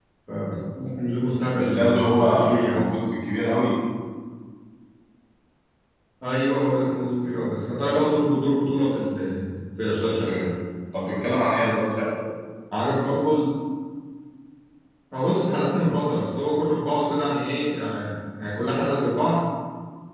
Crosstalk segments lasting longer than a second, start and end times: 1.6-2.9

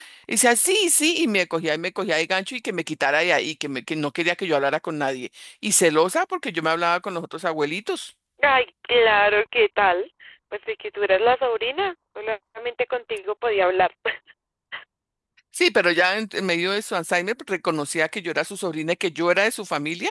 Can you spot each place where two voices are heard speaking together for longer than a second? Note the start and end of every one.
none

